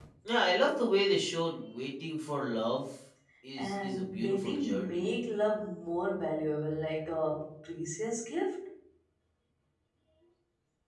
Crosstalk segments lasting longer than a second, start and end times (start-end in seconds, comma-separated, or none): 3.6-5.1